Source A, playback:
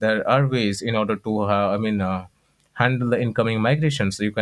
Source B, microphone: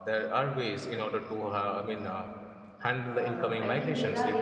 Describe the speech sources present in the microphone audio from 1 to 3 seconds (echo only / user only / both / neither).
echo only